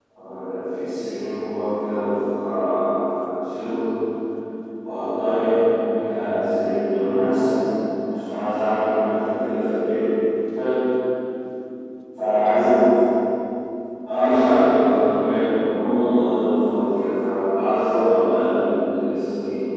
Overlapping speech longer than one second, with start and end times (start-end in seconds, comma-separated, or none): 14.2-15.4